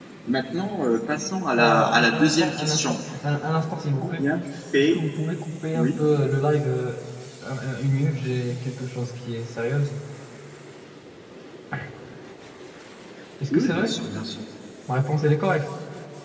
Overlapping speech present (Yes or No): Yes